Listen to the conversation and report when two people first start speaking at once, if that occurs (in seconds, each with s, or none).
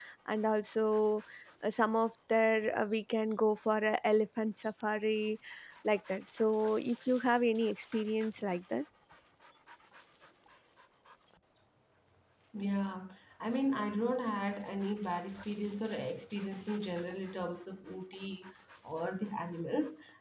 none